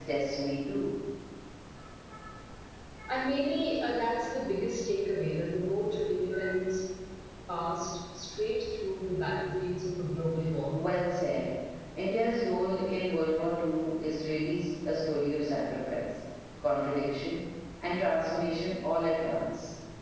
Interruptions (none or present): none